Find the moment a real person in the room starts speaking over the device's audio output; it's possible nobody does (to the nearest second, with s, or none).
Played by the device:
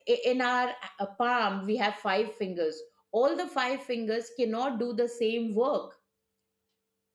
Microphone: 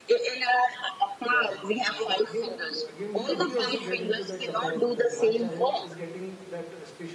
1 s